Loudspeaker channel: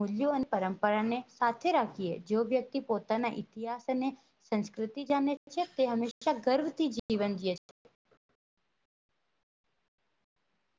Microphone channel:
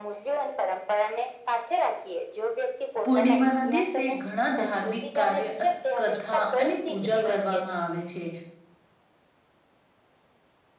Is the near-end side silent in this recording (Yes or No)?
No